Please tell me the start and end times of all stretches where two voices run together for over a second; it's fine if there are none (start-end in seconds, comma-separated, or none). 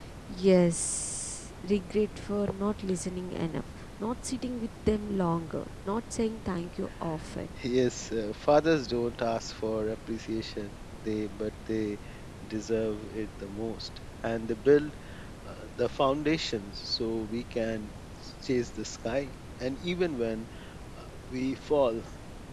none